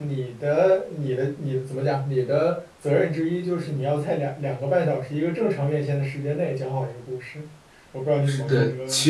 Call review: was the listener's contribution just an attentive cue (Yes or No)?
No